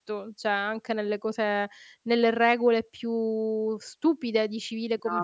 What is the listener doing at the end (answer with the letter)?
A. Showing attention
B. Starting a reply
B